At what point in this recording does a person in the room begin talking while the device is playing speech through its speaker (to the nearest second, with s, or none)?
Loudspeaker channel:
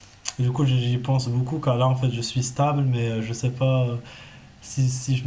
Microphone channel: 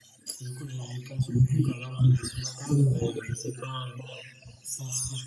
none